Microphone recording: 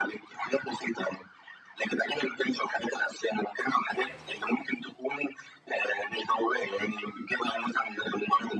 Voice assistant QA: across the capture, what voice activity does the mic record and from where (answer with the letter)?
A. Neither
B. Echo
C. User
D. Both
B